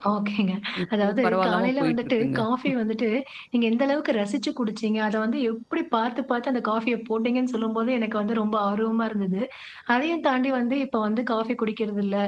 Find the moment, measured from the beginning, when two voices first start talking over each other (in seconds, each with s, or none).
1.0 s